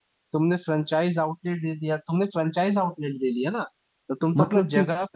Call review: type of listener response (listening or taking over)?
listening